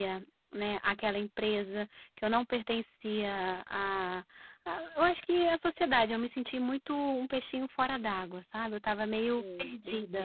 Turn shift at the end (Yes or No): Yes